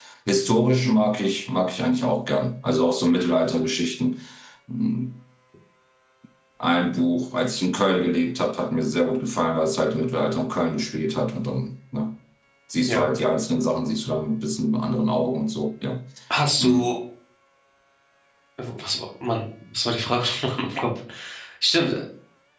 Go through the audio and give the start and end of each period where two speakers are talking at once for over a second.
none

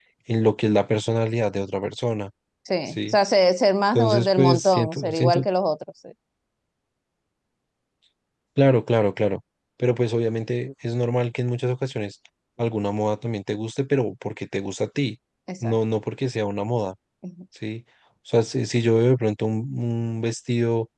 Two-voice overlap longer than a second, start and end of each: 3.9-5.4

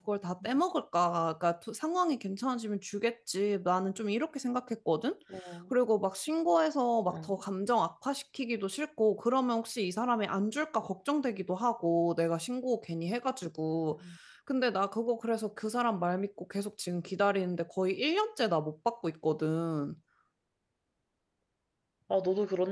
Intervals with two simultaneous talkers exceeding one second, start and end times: none

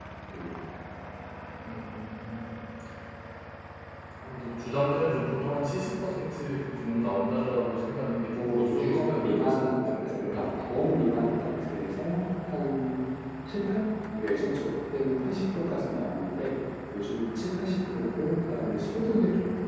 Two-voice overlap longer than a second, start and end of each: 8.3-10.4

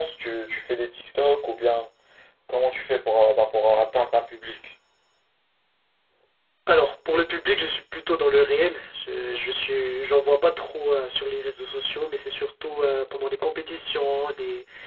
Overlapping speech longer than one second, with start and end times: none

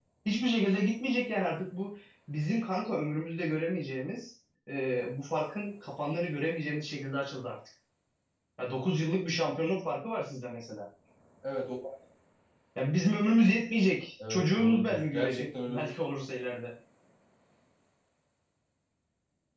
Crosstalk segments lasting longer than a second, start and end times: 14.3-15.9

